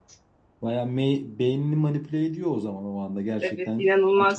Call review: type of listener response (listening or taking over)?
taking over